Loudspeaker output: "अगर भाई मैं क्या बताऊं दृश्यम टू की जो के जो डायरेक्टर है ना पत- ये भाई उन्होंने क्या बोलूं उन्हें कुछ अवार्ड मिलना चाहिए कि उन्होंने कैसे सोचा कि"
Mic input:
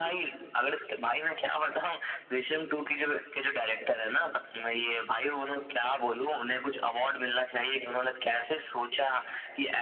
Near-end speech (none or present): none